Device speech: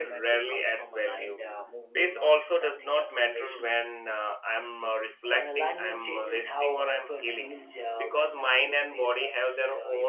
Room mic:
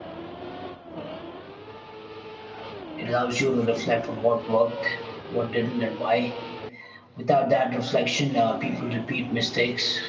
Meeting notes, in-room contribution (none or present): present